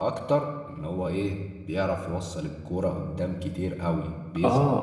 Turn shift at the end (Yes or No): Yes